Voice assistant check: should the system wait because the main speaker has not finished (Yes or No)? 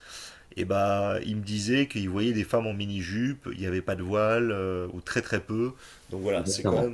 No